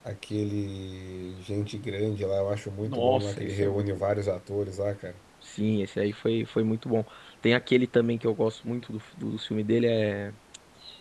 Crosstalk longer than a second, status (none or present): present